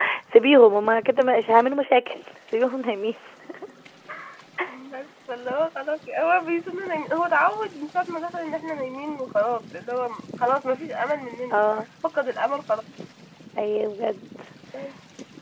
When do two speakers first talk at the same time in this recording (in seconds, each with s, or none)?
none